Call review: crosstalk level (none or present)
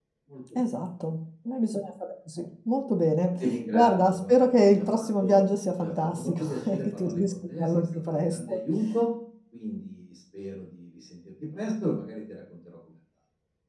present